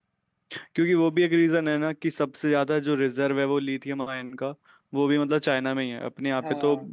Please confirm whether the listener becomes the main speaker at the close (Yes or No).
No